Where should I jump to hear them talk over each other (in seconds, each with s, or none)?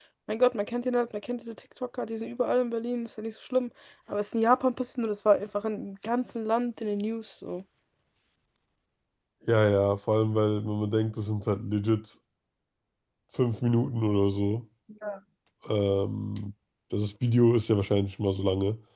none